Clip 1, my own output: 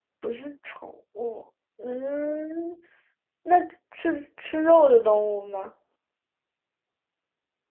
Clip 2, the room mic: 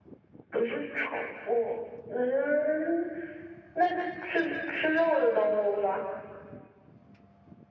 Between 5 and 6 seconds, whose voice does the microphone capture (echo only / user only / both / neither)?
echo only